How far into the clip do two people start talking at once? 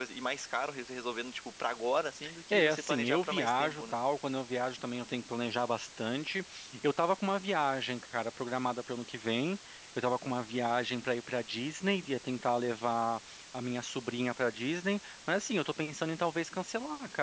2.5 s

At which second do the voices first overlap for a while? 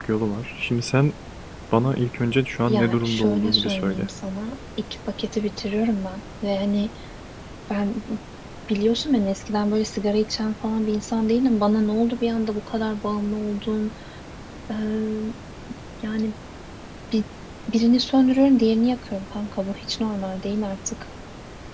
2.7 s

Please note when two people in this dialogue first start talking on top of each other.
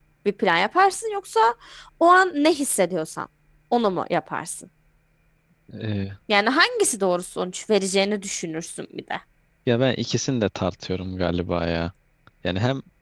none

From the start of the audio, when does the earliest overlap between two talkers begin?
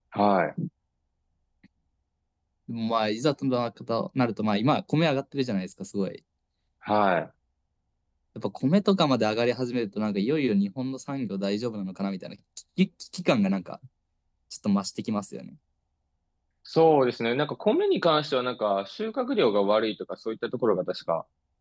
none

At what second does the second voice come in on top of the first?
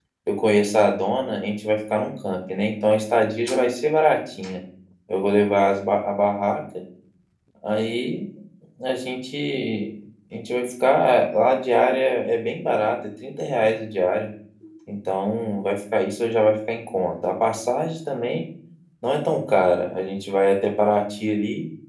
none

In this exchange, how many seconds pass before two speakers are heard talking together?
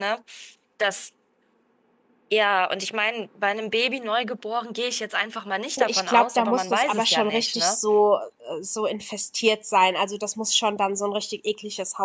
5.8 s

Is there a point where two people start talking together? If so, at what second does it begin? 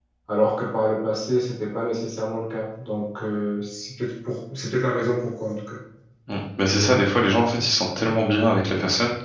none

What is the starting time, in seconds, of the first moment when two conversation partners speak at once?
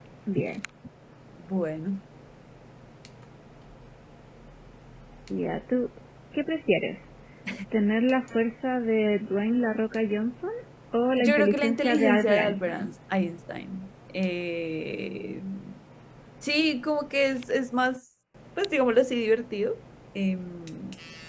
11.2 s

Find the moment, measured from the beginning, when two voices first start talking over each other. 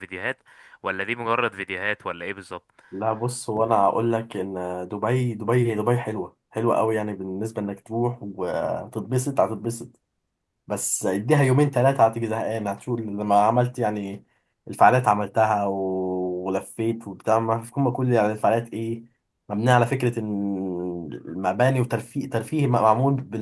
none

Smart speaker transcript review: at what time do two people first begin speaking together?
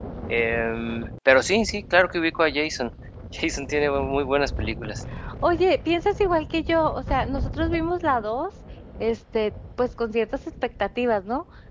none

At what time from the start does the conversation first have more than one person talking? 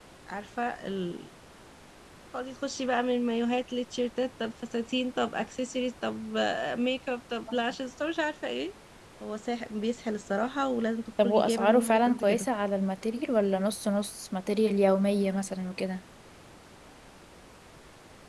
11.2 s

